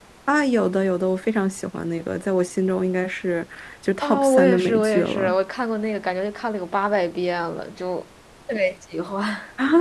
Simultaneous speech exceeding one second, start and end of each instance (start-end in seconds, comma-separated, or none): 4.0-5.3